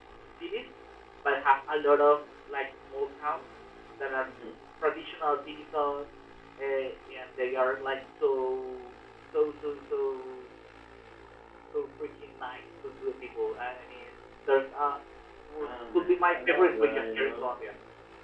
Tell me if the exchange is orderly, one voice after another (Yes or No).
No